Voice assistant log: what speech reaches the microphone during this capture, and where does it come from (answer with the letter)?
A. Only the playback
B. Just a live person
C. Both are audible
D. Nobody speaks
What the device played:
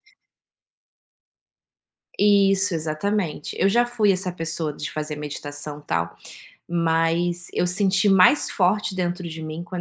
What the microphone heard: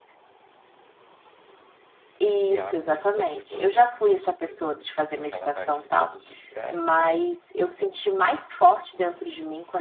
C